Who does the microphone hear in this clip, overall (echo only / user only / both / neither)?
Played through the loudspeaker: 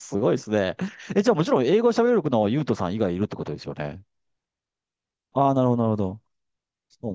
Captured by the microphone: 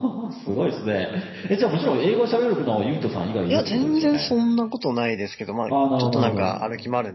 both